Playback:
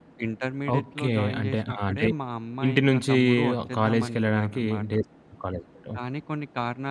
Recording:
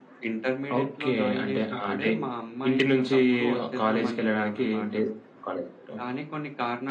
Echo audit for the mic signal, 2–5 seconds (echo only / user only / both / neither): echo only